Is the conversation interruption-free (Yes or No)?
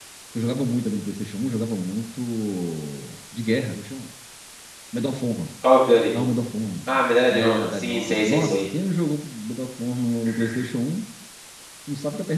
No